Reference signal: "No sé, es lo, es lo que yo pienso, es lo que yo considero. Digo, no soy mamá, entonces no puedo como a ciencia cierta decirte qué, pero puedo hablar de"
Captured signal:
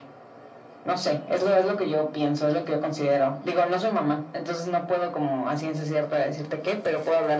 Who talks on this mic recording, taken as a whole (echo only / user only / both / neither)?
echo only